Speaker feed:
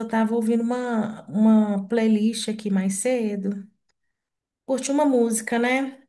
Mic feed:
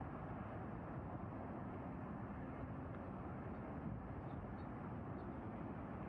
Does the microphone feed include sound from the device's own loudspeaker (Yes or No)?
No